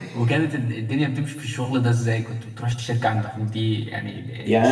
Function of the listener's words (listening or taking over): taking over